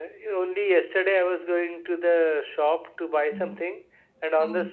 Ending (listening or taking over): listening